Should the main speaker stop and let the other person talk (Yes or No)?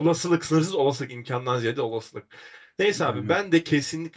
No